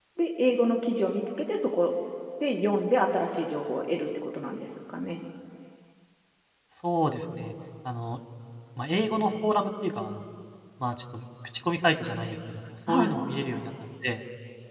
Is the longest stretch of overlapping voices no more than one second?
Yes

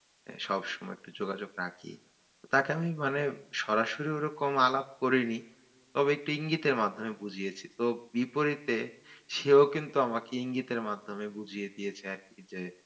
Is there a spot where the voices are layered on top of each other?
No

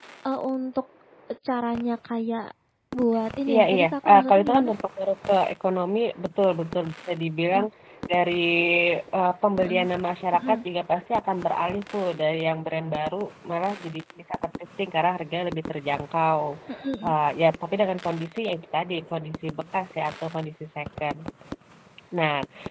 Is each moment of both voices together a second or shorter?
No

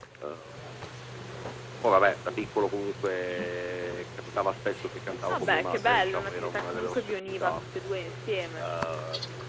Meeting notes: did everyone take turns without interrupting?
No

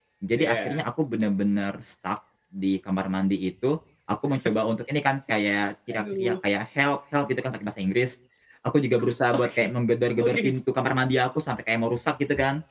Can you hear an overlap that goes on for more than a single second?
No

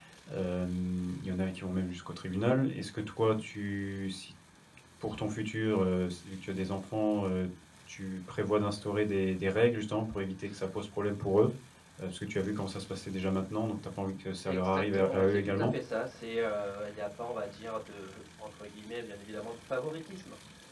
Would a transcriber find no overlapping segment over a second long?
No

